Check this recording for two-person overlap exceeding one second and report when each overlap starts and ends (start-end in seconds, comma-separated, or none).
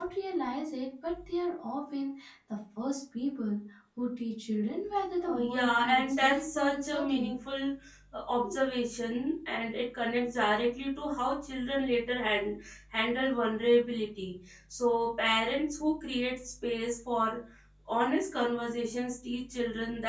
5.3-7.3